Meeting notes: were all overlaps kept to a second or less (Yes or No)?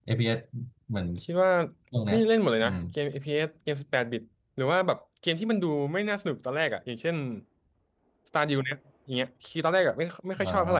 Yes